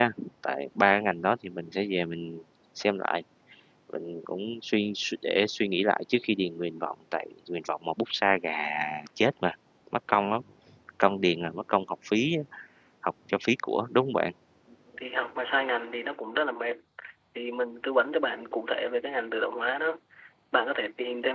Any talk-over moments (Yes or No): No